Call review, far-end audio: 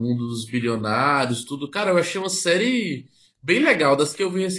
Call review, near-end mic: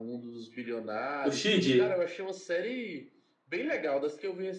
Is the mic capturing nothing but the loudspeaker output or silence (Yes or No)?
No